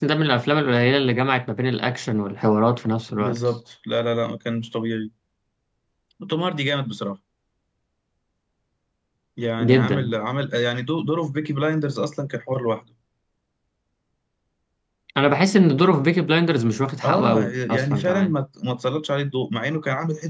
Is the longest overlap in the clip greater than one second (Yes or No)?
Yes